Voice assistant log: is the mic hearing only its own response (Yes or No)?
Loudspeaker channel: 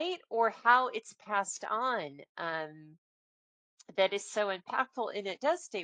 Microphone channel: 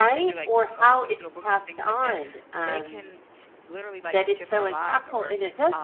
No